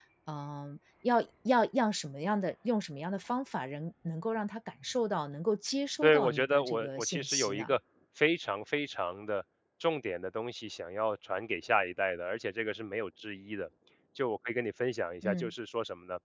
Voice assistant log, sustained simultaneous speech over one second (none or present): present